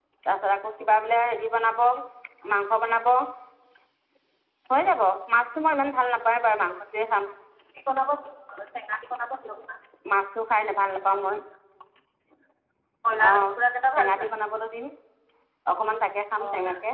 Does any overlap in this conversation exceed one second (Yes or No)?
No